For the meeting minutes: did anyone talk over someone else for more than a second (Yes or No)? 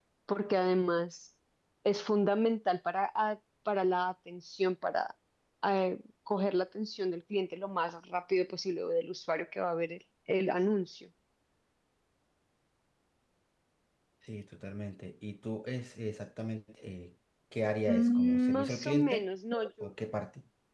Yes